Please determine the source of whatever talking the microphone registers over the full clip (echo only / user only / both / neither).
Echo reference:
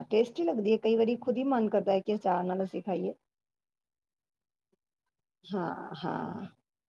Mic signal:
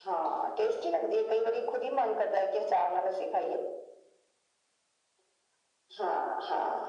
echo only